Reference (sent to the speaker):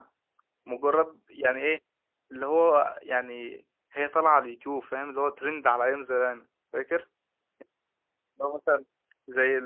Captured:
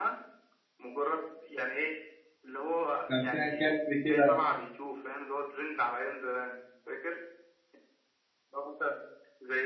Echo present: Yes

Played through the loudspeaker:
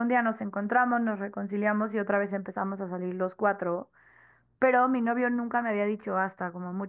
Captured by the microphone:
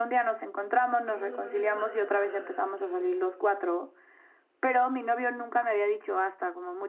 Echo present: Yes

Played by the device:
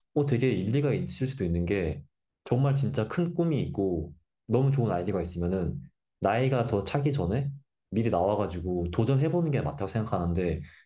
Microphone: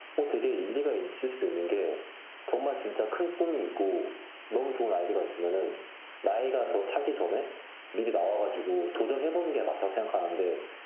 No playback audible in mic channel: No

